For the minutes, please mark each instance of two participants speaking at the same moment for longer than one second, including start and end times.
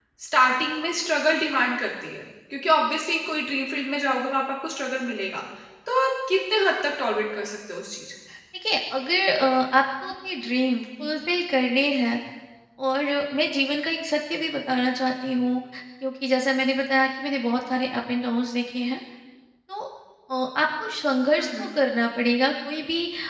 none

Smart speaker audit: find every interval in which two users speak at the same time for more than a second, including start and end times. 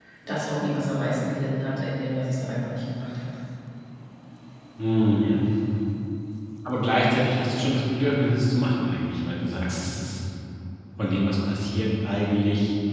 none

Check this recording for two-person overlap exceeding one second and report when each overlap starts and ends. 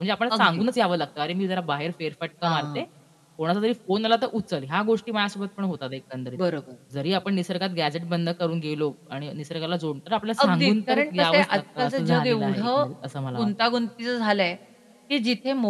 10.4-12.8

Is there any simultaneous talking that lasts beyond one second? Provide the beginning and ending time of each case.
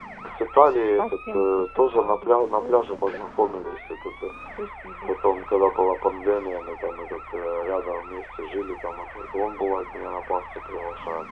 1.0-3.2

